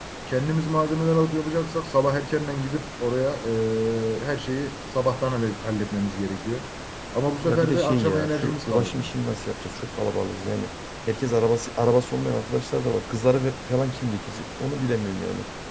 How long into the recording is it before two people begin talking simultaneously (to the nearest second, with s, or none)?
7 s